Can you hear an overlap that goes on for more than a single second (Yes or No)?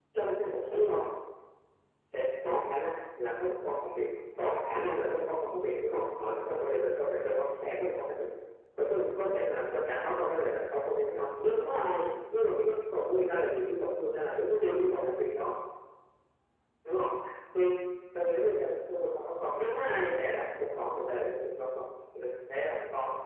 No